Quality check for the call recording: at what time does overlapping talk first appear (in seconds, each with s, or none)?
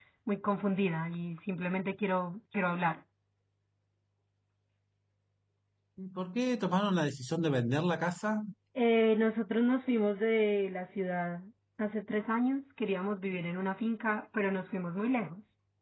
none